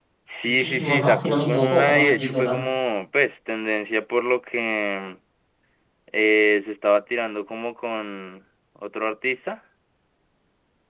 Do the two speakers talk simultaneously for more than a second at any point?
Yes, from 0.6 s

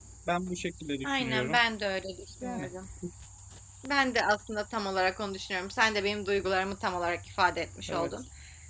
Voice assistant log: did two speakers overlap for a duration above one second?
No

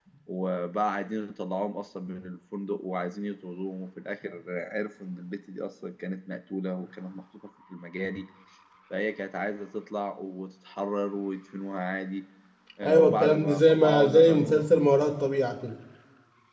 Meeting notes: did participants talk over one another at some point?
Yes, from 12.8 s

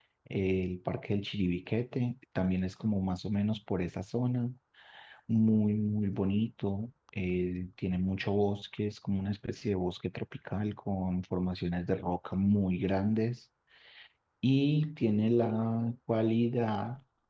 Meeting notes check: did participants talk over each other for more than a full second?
No

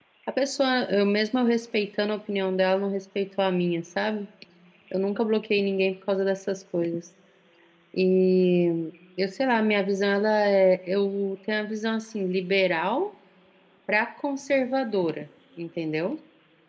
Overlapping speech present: No

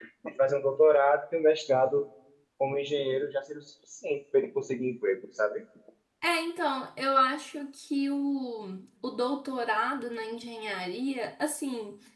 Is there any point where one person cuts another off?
No

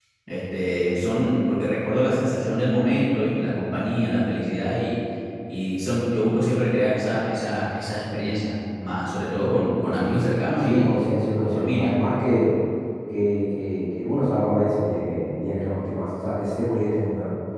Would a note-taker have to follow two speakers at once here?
Yes, from 10.6 s

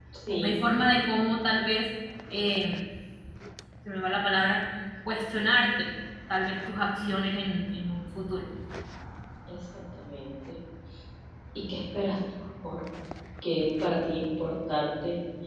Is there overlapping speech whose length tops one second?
No

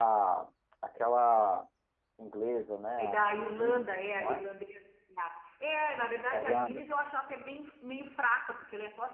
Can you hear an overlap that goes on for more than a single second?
Yes, from 3.0 s

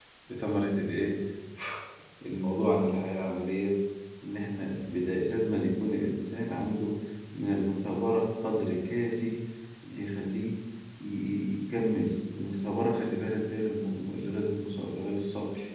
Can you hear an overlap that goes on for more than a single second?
No

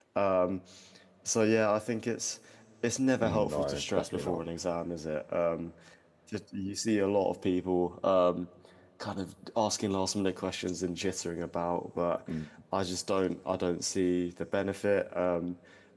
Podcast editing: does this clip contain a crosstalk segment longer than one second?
Yes, from 3.2 s

